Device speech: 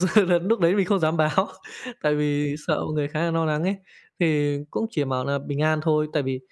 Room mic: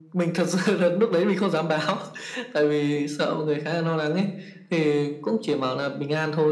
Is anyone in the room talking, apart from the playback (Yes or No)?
No